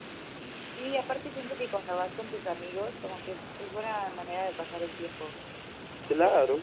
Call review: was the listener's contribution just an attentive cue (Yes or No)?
No